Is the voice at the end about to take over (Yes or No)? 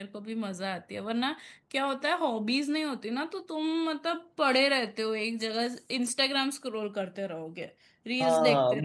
Yes